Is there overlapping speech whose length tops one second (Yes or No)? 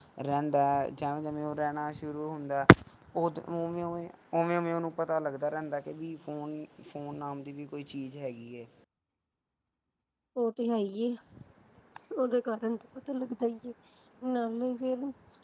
No